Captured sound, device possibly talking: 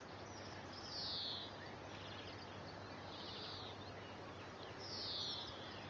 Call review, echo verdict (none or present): none